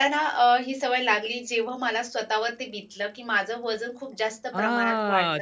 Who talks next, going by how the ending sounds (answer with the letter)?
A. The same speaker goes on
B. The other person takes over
B